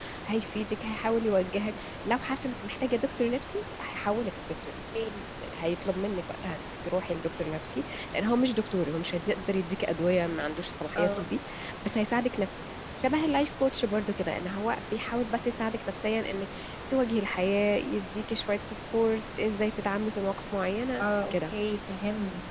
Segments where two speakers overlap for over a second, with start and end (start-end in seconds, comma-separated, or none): none